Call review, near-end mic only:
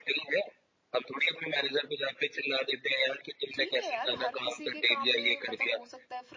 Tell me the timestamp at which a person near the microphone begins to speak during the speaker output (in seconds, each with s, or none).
3.5 s